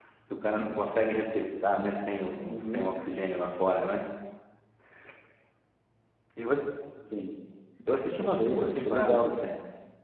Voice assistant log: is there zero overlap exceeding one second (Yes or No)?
No